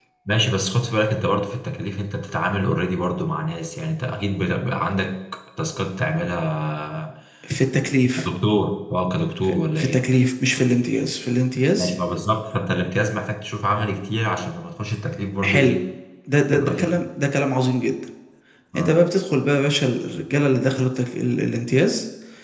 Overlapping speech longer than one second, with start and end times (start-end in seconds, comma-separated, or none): none